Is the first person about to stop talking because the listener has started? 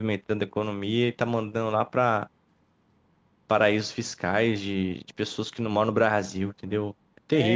Yes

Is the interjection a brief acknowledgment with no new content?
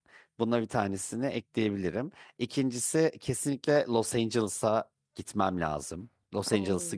No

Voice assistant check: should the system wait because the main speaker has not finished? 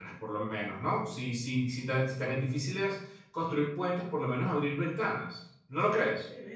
No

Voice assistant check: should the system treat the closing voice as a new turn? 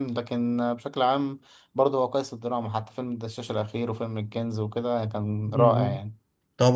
Yes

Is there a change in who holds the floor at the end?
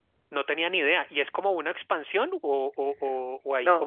Yes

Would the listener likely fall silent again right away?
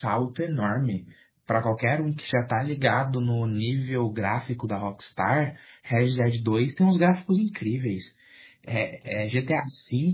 Yes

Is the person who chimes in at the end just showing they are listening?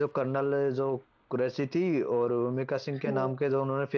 Yes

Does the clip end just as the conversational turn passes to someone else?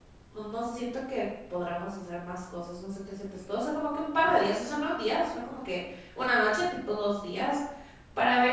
No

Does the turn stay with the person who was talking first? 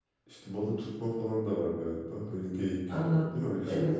No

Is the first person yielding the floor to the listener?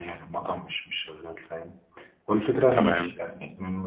No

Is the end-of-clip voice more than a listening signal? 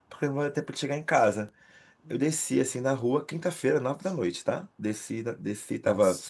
No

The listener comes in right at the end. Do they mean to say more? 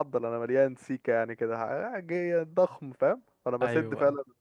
No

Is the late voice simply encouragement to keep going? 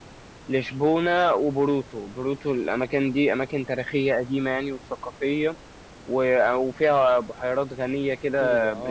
No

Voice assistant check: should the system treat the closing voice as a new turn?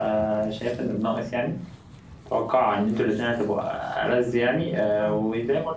No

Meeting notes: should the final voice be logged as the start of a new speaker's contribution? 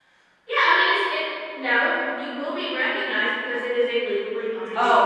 Yes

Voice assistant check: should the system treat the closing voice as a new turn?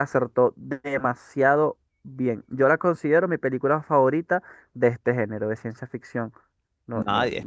Yes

